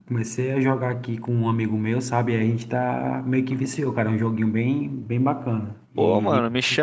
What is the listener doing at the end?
taking over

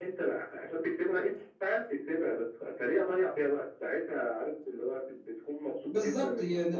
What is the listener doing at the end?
taking over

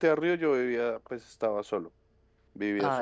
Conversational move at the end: listening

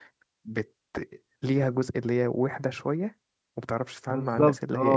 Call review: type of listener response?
taking over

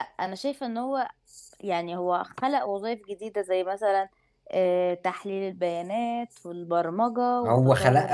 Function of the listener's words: taking over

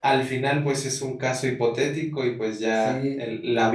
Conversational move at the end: listening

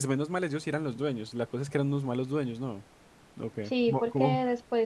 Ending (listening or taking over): taking over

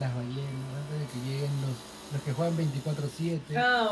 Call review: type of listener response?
taking over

